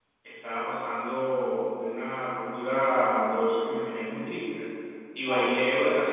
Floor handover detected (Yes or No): No